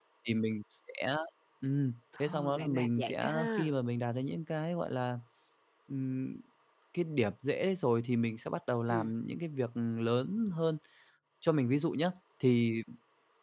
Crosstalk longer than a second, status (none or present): present